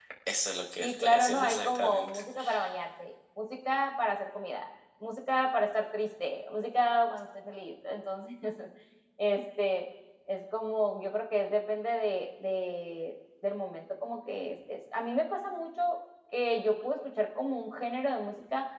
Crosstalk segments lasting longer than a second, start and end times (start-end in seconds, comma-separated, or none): 0.8-2.2